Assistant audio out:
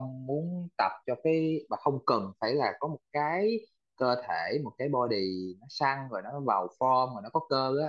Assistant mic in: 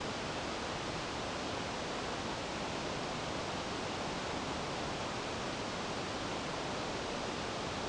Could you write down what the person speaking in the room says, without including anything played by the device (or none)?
none